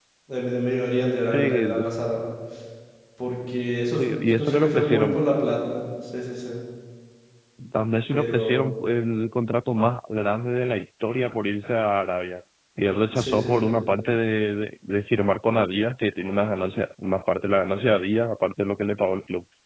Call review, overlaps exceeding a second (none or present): present